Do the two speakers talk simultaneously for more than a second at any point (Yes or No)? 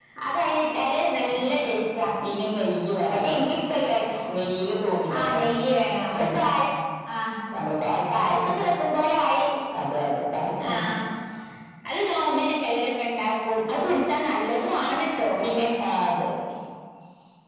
No